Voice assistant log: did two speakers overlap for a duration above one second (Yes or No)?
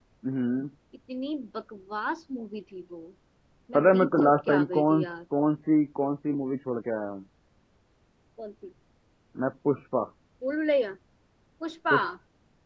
Yes